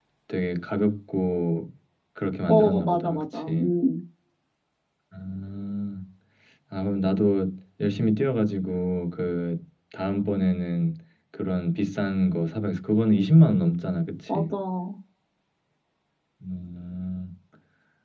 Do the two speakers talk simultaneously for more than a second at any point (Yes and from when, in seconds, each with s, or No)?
Yes, from 2.5 s